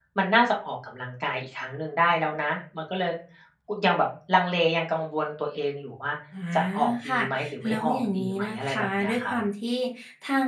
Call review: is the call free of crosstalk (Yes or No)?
No